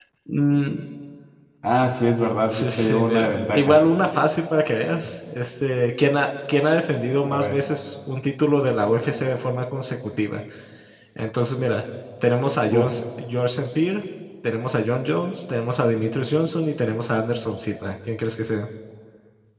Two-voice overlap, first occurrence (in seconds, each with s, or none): 2.5 s